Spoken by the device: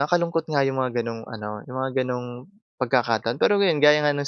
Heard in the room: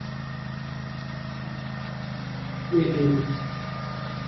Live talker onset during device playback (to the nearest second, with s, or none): 3 s